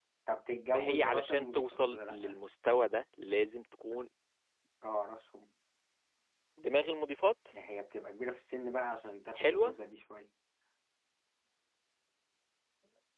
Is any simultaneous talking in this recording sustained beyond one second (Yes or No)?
Yes